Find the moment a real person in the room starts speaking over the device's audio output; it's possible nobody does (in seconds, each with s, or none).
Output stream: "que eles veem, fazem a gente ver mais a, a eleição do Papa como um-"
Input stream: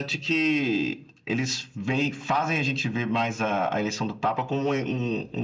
none